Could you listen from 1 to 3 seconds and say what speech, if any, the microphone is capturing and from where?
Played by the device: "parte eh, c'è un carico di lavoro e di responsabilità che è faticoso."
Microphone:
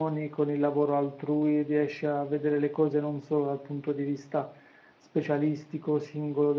user only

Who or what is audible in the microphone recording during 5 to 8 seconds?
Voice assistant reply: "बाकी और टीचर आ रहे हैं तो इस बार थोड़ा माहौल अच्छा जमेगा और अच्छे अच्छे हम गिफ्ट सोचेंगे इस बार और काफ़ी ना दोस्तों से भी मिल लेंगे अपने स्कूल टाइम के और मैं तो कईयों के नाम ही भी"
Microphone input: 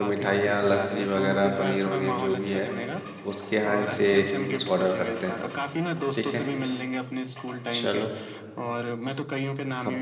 both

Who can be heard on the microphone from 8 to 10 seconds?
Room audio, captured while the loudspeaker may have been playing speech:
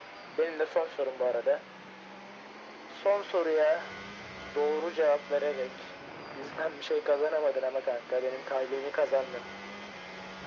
echo only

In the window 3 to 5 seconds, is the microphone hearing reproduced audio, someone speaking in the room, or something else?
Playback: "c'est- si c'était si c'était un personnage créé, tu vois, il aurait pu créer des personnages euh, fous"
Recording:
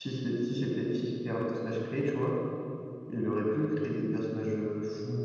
echo only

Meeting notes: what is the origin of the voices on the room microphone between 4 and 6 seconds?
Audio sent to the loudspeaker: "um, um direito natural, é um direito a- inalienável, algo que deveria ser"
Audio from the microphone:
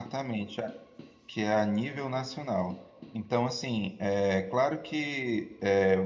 user only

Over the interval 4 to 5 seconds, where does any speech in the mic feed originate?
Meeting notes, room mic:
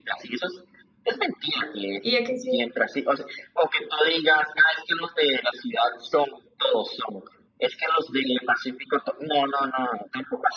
echo only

